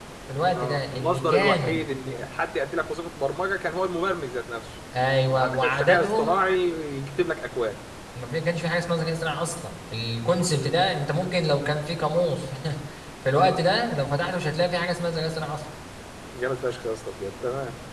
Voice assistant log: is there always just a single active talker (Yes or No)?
No